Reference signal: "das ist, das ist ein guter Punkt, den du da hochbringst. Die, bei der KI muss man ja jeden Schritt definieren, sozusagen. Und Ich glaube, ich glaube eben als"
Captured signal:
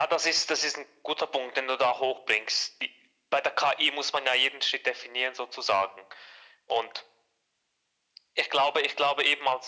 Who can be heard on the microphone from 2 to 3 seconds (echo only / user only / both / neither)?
echo only